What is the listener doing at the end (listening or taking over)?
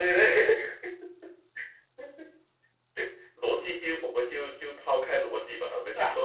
listening